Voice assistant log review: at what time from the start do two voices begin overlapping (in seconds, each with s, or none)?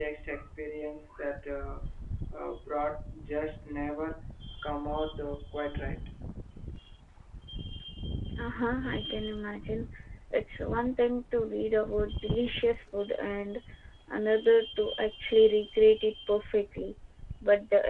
none